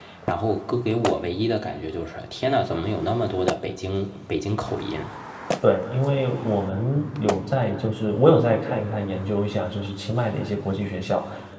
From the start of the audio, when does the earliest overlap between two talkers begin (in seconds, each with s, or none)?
none